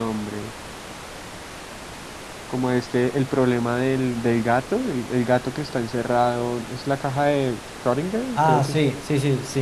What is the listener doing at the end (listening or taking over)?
taking over